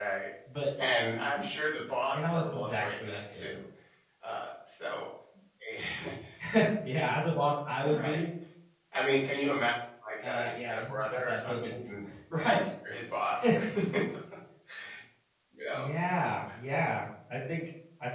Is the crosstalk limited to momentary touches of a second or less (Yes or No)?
No